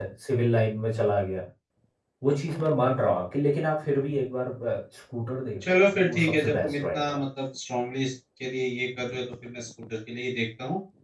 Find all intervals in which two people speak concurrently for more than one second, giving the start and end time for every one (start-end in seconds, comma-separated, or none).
5.6-7.2